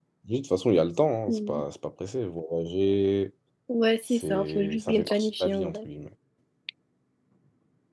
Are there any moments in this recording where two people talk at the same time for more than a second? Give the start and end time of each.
4.1-5.8

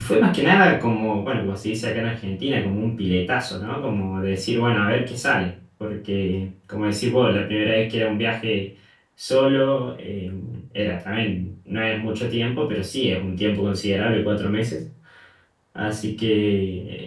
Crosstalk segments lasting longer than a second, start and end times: none

